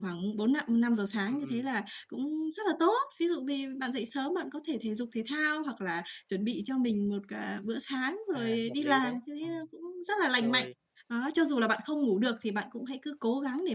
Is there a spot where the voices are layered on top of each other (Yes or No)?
Yes